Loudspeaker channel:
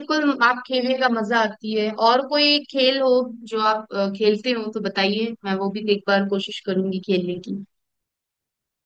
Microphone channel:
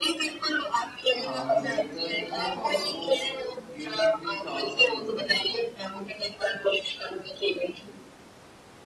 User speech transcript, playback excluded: हाँ जी एक रन मिल जाता है और वो गेंद भी काउंट नहीं होती है

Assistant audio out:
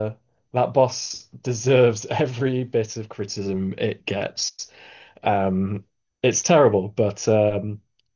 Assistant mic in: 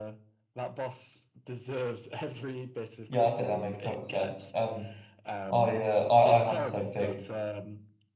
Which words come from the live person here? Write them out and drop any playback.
yeah, I'd say that makes total sense. Um, I uh I, I had the same thing.

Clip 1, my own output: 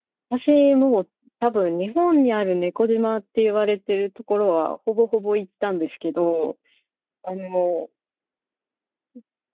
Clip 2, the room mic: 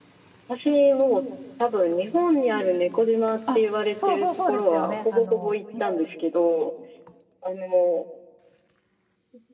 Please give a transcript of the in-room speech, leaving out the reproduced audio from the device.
あ、そうそうそうですよね。あの、も

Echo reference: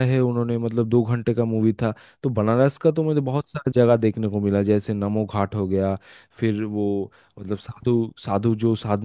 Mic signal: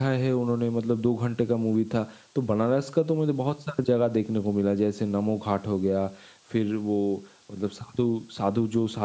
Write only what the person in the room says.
none

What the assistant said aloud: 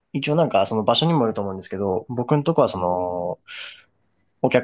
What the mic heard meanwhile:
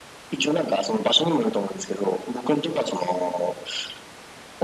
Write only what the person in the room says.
none

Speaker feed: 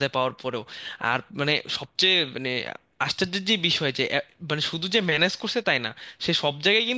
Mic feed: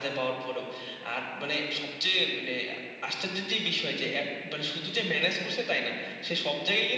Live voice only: none

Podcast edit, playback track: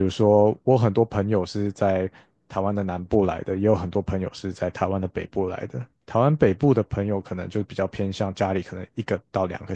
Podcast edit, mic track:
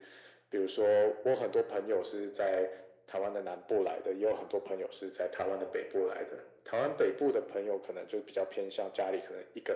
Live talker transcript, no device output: none

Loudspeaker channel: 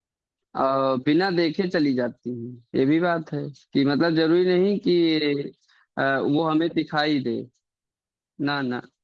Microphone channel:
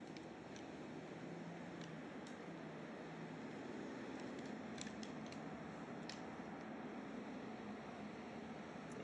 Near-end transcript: none

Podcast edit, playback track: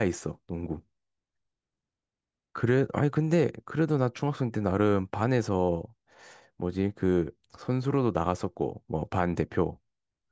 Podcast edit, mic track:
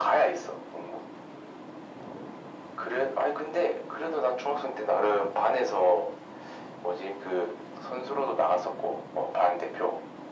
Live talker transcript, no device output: none

